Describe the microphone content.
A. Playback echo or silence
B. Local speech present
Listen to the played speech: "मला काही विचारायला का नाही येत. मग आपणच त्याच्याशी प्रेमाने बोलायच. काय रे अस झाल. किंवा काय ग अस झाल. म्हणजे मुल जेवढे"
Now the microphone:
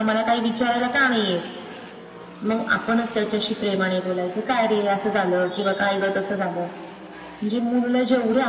A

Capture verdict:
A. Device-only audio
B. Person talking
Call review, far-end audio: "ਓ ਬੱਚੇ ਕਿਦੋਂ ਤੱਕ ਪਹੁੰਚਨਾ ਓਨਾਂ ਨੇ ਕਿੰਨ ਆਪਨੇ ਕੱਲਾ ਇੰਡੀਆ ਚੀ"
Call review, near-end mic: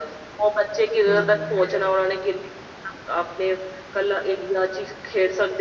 B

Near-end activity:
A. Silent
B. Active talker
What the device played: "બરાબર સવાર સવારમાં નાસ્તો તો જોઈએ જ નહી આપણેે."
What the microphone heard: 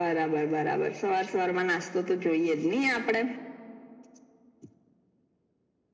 A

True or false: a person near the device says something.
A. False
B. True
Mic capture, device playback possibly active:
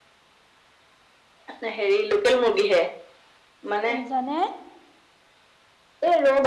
B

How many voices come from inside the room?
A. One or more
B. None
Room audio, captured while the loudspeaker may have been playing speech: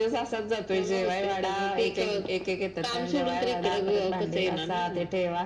B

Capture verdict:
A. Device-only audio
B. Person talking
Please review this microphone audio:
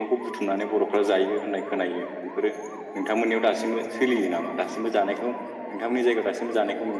A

